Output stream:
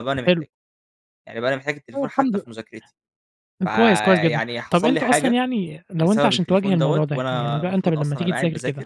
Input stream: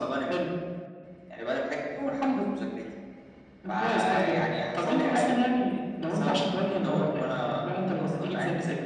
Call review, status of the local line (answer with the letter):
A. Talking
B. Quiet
B